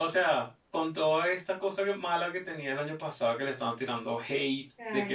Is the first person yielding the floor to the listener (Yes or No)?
No